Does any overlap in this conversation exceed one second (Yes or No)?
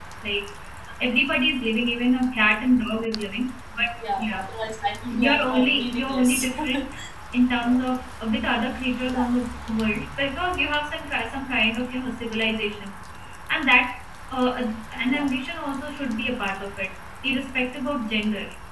Yes